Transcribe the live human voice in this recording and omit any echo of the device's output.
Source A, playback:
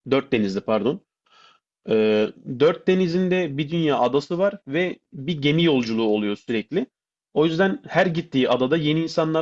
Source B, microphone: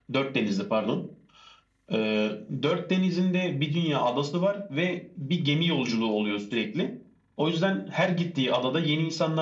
none

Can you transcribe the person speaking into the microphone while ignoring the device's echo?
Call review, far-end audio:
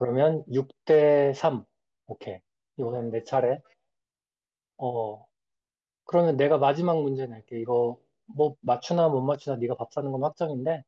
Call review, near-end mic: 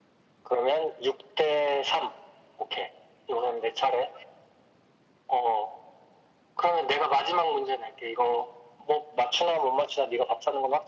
none

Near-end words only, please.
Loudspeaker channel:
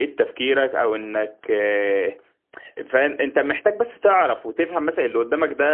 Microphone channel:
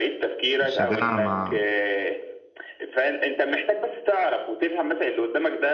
الشجاعة مع

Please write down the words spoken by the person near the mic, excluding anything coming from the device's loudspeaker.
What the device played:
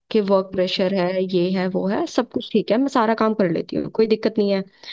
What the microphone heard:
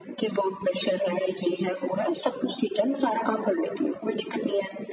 none

